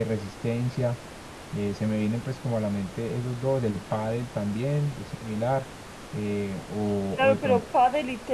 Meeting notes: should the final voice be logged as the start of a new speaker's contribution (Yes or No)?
Yes